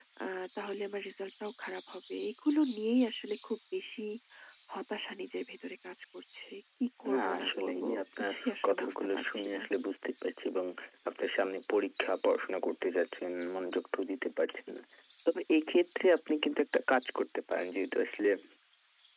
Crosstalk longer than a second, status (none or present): present